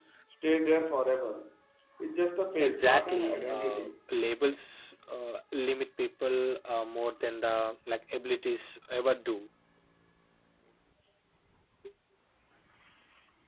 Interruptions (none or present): present